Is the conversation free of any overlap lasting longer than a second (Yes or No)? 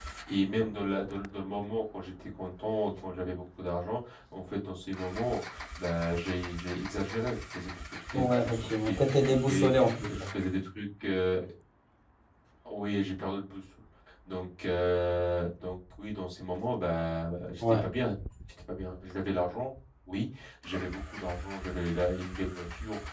No